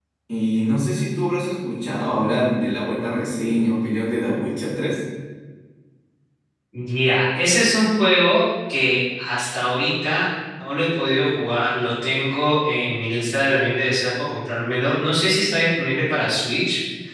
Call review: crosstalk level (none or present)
none